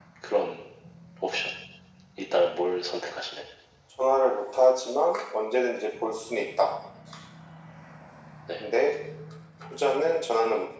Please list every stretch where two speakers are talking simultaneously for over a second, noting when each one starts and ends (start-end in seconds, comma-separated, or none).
none